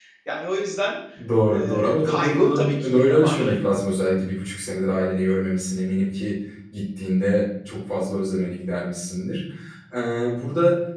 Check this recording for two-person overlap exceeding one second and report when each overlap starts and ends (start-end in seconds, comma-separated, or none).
1.5-3.6